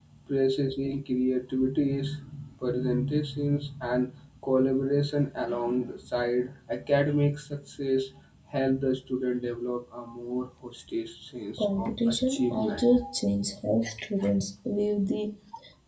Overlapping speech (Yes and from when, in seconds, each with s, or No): Yes, from 11.6 s